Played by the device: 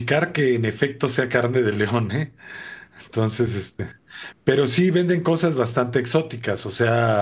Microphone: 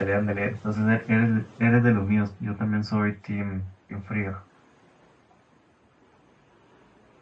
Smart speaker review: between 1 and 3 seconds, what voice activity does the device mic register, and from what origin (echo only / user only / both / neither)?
user only